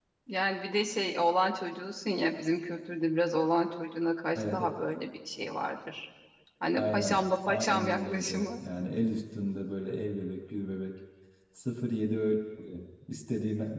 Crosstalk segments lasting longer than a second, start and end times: 6.8-8.5

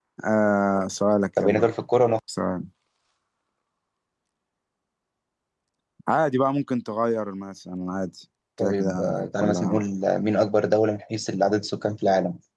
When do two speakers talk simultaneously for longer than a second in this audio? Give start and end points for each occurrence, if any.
8.6-9.8

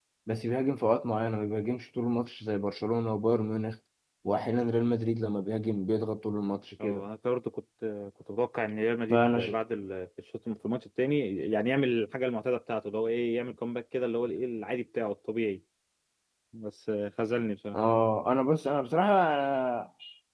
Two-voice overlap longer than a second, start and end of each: none

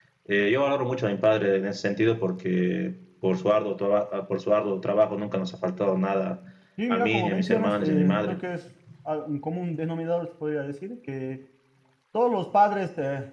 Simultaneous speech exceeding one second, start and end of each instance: 6.9-8.4

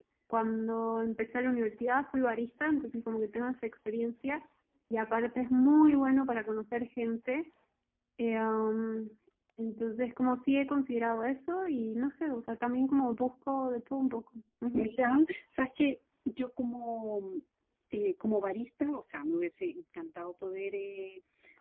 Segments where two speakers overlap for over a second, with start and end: none

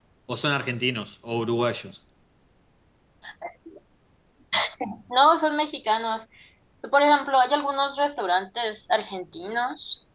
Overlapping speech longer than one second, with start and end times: none

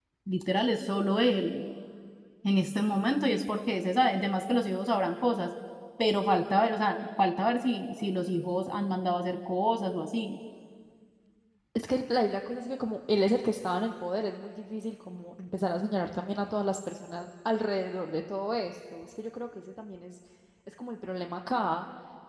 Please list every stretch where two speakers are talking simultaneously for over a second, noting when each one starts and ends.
none

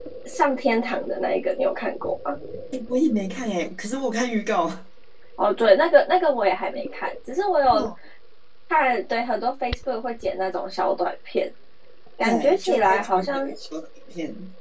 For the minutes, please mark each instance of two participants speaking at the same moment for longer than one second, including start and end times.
12.2-13.5

